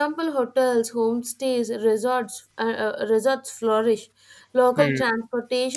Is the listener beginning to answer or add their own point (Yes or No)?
No